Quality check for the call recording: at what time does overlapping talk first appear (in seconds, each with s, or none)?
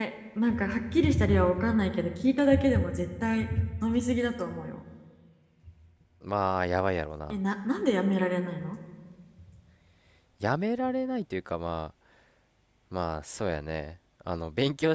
none